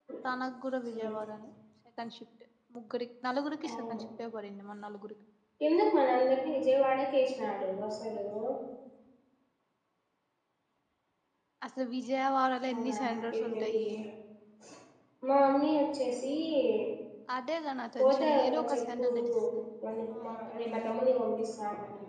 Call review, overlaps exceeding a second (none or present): present